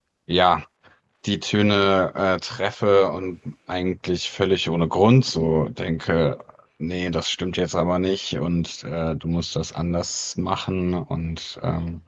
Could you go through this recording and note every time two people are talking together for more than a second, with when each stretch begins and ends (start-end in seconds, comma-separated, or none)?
none